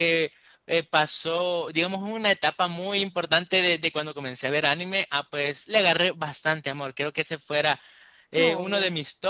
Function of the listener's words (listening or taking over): listening